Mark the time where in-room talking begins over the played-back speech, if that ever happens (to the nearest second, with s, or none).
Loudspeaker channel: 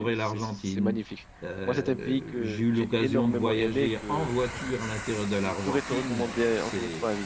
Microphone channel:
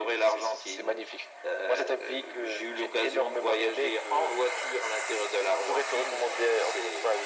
none